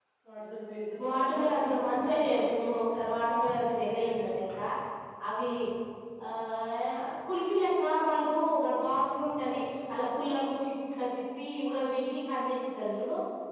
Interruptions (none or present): present